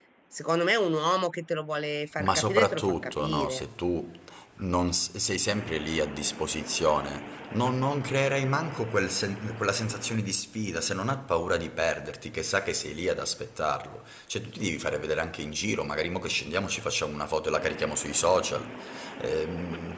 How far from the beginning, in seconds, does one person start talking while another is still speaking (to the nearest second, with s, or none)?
2 s